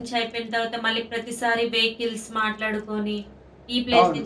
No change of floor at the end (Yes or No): Yes